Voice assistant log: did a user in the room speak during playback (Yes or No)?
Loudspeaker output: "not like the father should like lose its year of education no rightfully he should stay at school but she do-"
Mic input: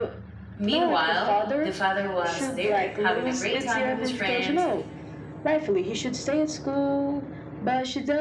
Yes